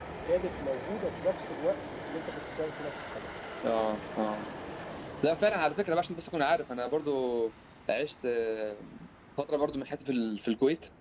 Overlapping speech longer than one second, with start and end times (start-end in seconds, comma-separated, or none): none